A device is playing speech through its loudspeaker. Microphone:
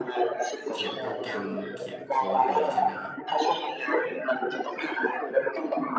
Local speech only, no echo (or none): เขียนโปรแกรมเขียนโค้ดอะไรอย่างนี้ใช่ไหมครับ